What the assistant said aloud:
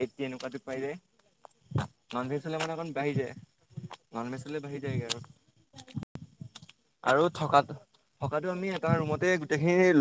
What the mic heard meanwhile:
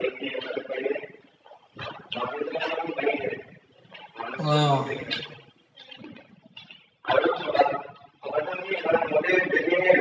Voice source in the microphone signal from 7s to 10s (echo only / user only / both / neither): echo only